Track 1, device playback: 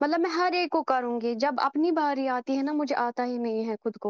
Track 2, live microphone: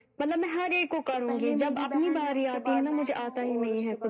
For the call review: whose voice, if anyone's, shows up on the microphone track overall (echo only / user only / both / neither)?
both